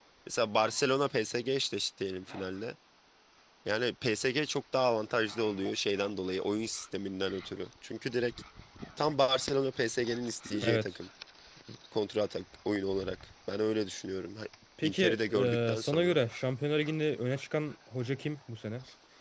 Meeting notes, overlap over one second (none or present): present